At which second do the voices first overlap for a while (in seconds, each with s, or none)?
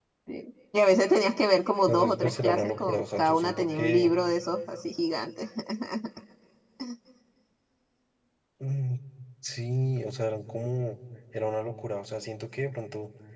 1.9 s